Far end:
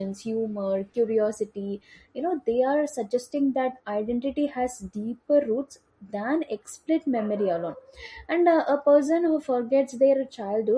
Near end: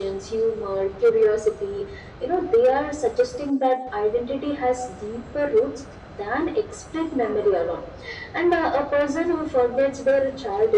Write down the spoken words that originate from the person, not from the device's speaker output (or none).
none